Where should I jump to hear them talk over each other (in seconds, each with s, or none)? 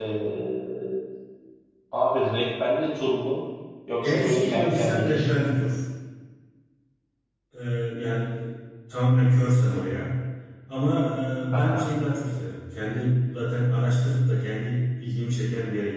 4.0 s